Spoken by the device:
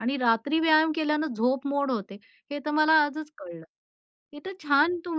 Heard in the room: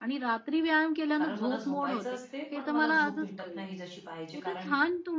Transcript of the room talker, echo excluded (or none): कारण मला झोपायचं असते, पण मला झोप भेटत नाही जशी पाहिजे, कारण